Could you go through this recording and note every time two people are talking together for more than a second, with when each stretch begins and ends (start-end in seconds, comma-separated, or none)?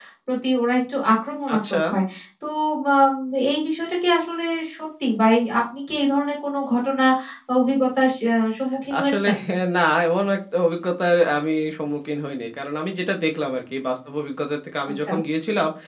none